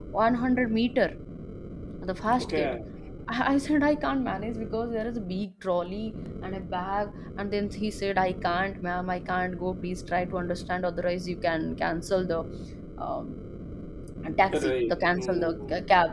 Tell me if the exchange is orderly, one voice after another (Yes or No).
No